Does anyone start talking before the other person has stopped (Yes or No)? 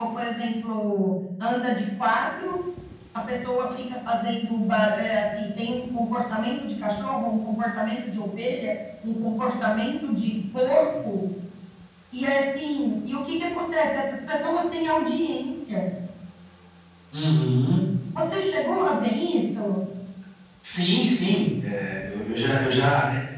No